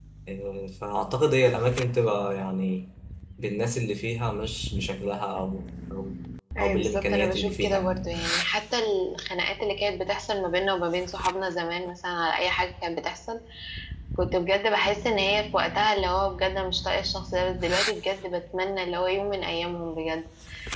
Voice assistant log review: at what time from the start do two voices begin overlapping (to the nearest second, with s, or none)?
7 s